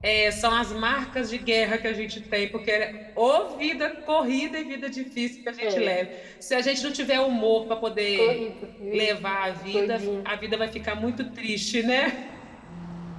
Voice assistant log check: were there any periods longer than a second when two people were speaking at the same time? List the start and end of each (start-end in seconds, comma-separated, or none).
none